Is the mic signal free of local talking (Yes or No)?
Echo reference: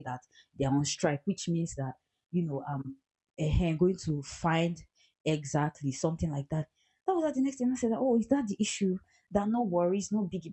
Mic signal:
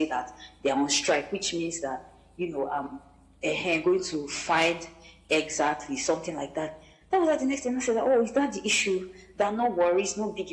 Yes